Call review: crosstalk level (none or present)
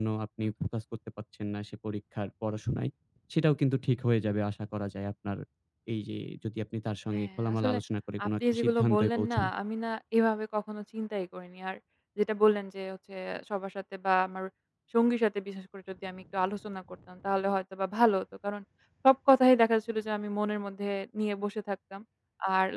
present